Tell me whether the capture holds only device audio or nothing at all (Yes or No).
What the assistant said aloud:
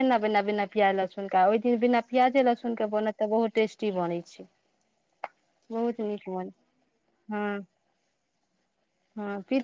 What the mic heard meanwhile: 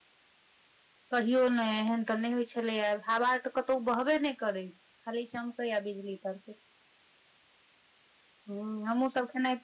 No